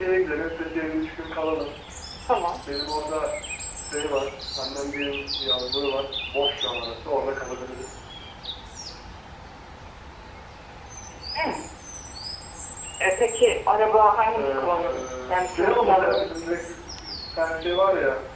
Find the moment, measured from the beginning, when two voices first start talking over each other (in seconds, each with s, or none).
14.4 s